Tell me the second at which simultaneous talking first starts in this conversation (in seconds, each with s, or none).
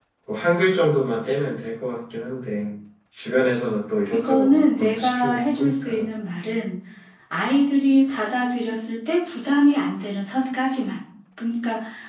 4.1 s